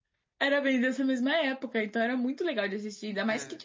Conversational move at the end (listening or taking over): listening